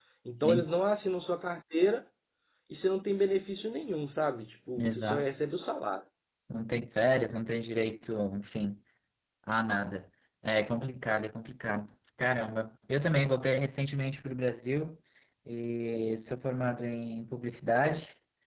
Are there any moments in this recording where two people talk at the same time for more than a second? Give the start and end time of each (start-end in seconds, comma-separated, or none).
none